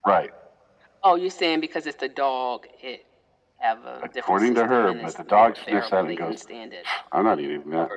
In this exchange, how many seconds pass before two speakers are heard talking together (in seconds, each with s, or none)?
4.3 s